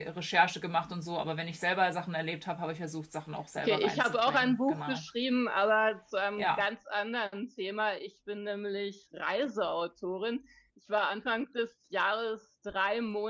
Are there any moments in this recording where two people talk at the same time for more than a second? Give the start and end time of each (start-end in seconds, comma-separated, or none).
3.6-5.0